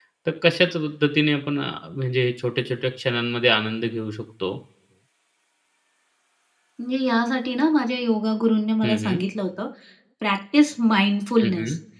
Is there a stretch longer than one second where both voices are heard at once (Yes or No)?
No